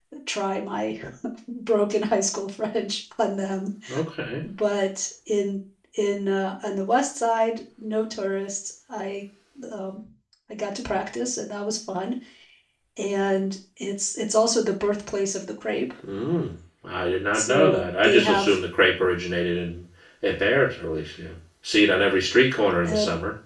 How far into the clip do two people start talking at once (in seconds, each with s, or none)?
17.3 s